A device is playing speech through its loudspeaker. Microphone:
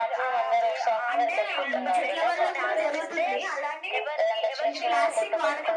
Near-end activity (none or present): present